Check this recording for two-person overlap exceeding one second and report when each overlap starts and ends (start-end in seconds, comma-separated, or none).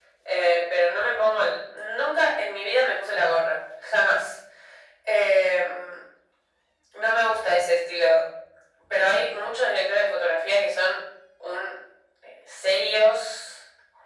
none